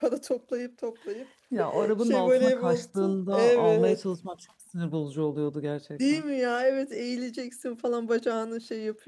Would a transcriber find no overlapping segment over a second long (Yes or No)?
No